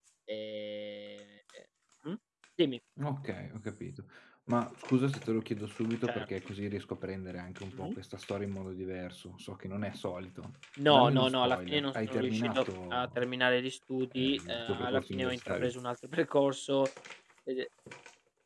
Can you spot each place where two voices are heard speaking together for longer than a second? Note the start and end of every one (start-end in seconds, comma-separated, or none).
10.9-13.3, 14.1-15.7